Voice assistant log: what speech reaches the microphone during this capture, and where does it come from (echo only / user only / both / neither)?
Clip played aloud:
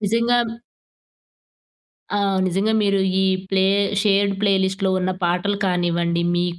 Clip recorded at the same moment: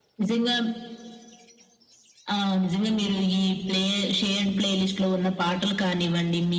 echo only